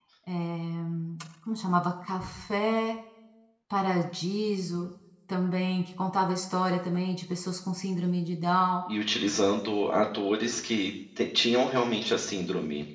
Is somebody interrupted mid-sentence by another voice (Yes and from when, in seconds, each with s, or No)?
No